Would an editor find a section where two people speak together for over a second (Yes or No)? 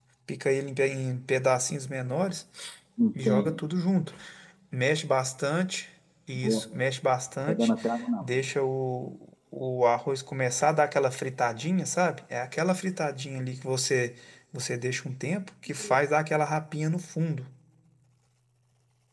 No